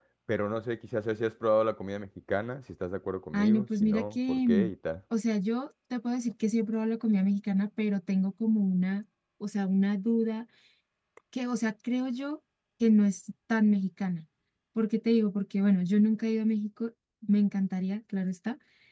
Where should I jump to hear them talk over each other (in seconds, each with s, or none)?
3.3 s